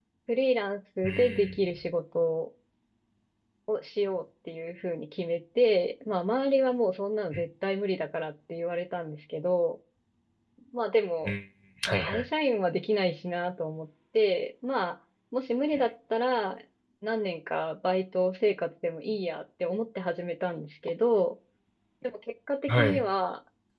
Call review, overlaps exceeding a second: none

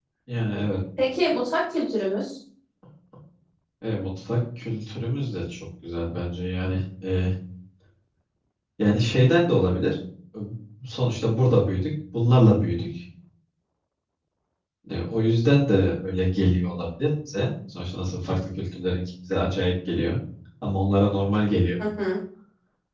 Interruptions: none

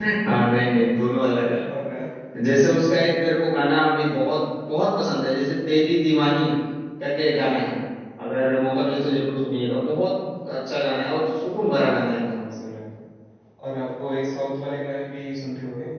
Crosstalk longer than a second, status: none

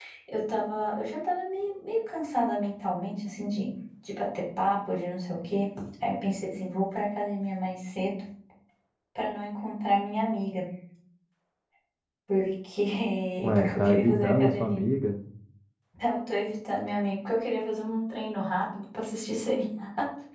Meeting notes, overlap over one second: present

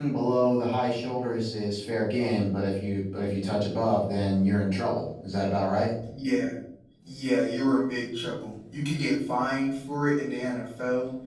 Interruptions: none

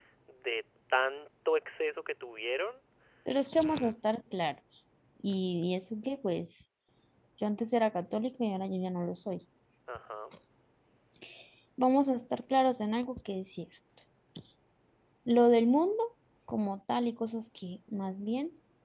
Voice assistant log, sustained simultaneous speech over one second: none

